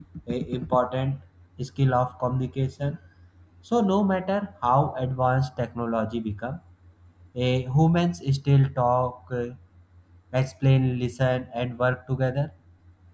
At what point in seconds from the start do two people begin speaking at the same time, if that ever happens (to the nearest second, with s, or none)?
none